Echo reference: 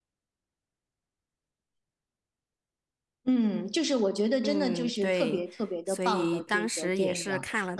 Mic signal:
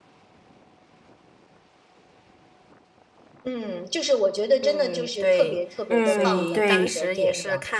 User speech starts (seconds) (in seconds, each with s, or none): 5.9 s